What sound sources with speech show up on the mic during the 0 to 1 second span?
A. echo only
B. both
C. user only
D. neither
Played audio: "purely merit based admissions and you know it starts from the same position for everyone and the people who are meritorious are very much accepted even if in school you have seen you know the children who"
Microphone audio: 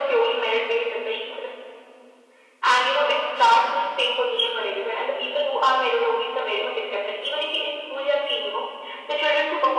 A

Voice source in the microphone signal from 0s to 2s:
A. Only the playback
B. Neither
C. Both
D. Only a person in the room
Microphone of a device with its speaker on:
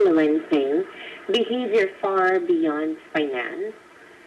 A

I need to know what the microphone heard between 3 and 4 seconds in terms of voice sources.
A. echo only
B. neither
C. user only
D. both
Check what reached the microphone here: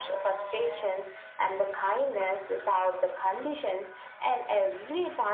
A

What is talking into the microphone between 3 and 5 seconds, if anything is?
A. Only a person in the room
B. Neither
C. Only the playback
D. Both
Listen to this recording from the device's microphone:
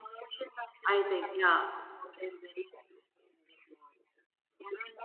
C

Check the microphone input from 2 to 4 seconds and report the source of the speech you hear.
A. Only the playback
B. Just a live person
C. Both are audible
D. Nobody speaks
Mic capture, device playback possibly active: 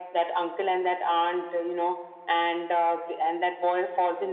A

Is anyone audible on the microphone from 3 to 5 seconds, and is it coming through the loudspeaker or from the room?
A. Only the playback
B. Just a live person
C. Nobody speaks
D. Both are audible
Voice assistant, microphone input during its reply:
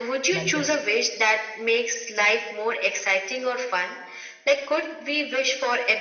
A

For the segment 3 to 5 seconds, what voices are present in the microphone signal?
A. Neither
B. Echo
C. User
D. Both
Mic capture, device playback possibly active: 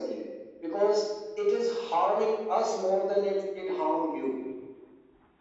B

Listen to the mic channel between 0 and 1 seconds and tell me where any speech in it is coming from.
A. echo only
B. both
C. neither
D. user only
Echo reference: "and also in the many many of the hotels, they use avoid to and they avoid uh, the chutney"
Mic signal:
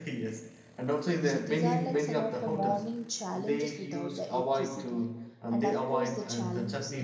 A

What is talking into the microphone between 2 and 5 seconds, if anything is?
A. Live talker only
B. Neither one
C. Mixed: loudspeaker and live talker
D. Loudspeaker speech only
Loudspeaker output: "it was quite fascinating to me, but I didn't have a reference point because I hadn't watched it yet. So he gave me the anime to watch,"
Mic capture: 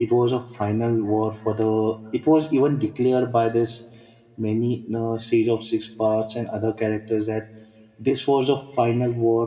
A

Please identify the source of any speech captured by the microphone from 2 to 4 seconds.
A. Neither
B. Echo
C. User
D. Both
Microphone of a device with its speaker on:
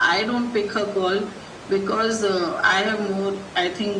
B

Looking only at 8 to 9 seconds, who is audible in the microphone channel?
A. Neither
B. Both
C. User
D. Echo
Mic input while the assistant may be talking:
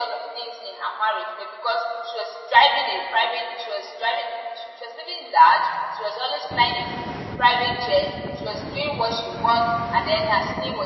D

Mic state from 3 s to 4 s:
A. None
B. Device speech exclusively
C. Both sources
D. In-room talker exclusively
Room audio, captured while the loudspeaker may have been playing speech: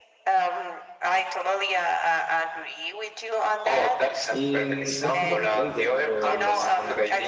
B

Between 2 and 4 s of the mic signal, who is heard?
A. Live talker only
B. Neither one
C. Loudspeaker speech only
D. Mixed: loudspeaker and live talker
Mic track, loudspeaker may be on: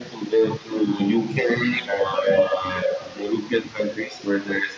C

